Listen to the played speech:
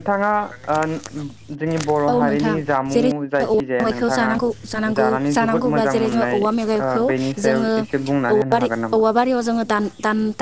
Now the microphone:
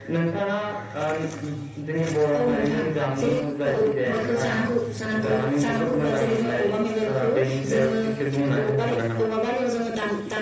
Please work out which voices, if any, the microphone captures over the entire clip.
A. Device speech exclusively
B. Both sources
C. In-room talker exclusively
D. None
A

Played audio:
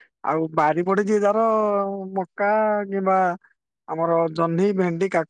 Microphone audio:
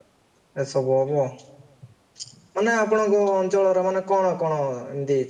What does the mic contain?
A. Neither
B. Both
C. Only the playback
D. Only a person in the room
D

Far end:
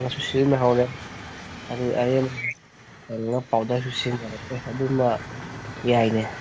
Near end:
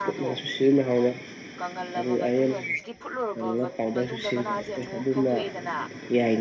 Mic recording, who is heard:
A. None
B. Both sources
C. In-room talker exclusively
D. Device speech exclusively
B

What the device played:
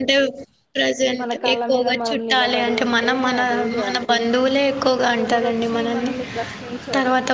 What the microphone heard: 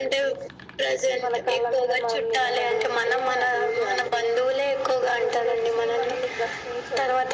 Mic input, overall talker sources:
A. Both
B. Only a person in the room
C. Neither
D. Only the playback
D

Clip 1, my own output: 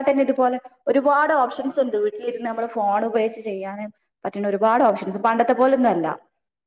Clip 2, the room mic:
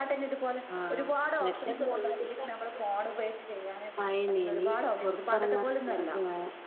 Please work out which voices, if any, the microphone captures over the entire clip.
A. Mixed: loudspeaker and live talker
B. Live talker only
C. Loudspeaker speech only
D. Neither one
A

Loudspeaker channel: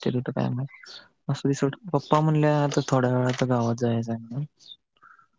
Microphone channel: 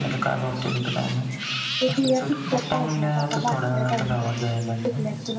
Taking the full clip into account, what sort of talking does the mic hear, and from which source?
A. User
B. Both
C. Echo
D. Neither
B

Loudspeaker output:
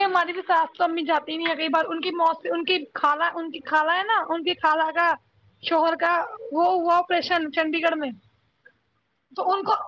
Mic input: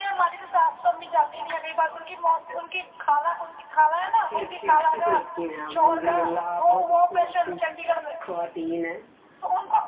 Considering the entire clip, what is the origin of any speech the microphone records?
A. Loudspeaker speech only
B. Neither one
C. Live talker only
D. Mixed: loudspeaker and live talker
D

